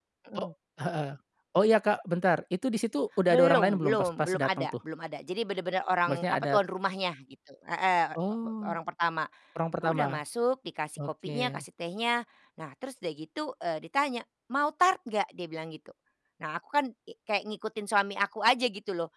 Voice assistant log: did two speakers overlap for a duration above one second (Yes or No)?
Yes